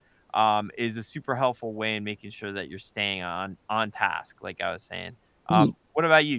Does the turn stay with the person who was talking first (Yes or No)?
Yes